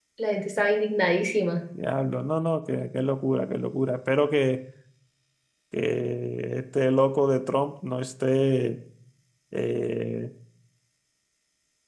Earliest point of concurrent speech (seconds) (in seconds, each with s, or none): none